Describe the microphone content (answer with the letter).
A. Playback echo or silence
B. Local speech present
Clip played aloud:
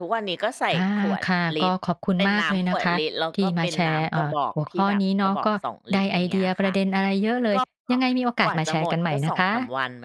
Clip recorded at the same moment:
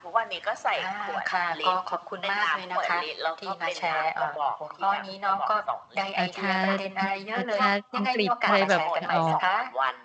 B